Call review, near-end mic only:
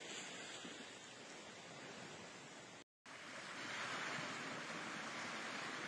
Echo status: none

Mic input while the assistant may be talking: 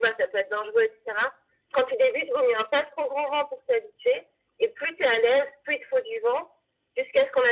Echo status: present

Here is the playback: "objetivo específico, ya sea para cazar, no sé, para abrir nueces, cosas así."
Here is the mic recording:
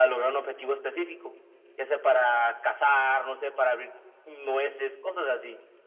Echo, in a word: present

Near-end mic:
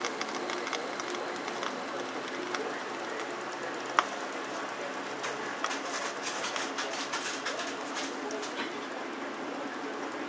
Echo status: none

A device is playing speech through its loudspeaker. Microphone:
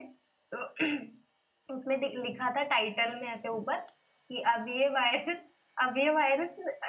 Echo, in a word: none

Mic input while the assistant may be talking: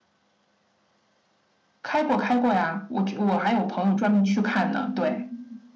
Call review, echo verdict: present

